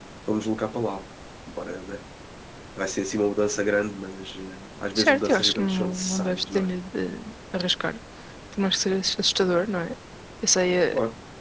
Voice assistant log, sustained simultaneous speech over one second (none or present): present